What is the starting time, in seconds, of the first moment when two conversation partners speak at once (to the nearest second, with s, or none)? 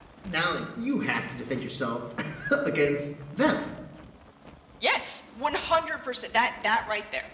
none